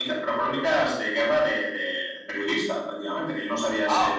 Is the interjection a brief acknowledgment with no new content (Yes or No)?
No